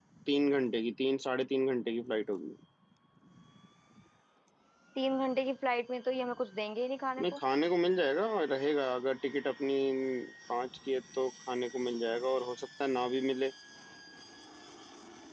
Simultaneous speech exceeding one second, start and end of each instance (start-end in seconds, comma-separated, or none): none